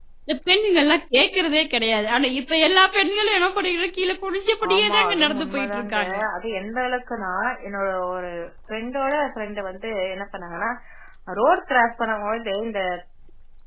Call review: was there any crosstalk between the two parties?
Yes, from 4.6 s

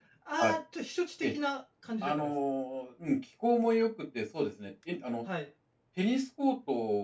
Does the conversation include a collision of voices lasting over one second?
No

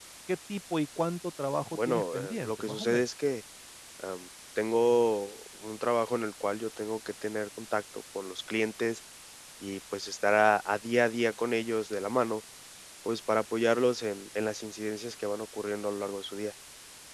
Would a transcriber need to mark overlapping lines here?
Yes, from 1.7 s

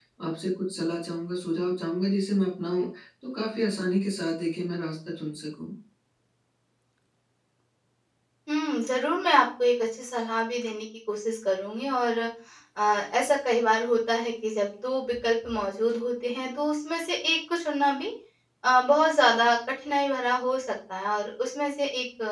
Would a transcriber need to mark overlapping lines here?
No

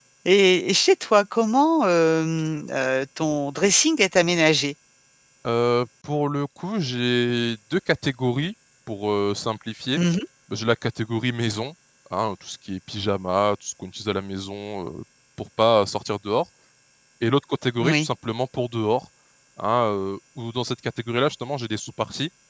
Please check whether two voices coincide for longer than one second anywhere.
No

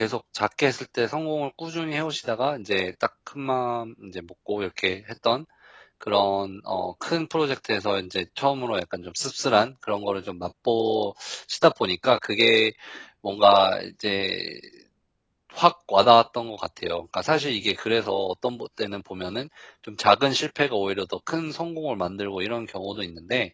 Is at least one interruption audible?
No

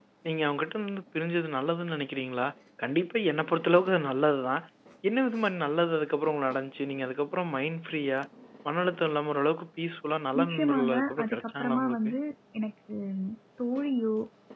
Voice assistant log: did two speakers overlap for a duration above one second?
Yes, from 10.3 s

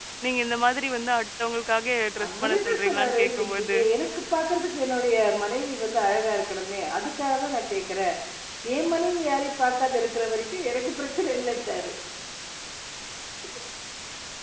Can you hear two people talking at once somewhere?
Yes, from 2.2 s

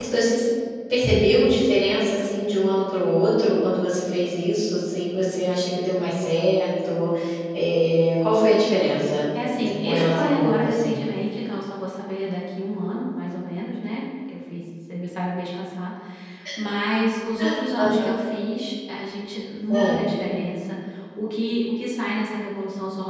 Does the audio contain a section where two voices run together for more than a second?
Yes, from 9.6 s

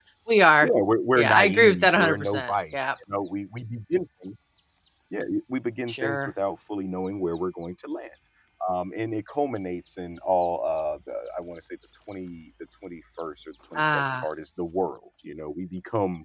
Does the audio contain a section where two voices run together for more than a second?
Yes, from 1.1 s

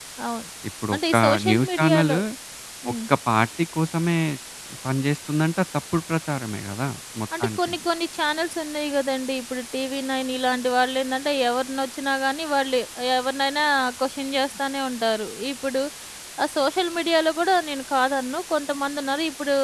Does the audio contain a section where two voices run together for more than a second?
Yes, from 0.9 s

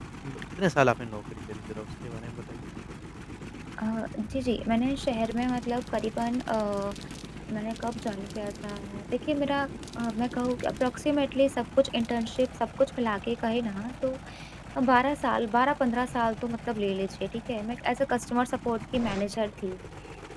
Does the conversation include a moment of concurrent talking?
No

